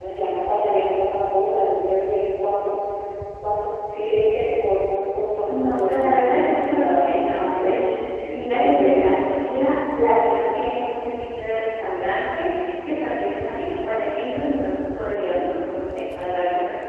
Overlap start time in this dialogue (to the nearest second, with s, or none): 5 s